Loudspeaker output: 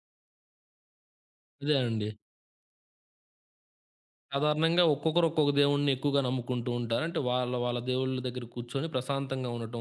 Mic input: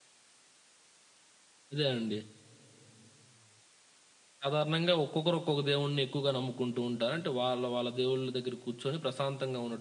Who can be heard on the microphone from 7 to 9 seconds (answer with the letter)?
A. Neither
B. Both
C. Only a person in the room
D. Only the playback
D